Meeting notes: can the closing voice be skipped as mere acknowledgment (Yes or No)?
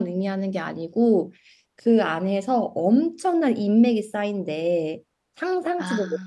Yes